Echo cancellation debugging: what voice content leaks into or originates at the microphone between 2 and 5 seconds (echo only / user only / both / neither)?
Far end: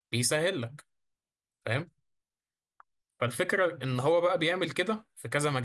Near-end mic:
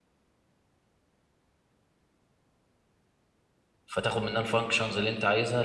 user only